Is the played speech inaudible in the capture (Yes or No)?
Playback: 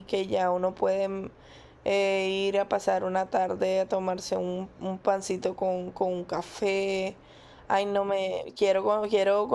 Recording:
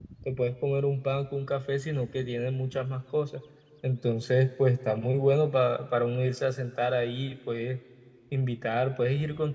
Yes